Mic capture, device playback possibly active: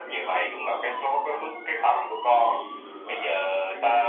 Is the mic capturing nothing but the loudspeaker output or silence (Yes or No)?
No